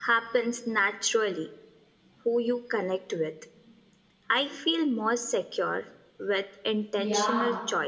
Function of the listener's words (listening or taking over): taking over